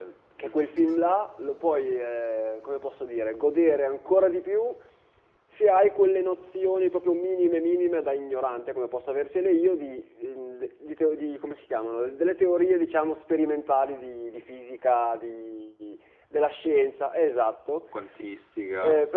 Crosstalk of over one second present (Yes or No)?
No